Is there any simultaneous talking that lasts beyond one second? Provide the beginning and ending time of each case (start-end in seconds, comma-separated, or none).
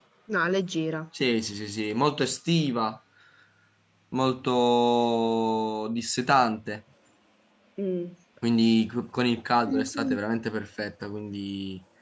none